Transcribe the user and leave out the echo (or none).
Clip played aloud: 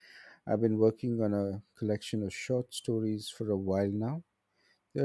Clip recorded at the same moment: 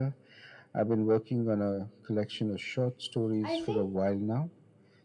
I think,